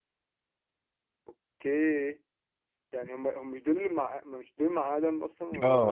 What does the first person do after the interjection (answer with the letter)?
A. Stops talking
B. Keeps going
A